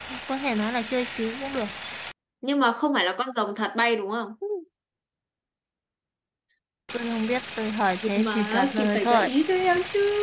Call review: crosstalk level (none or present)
present